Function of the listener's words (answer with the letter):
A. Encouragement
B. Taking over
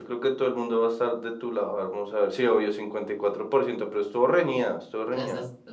B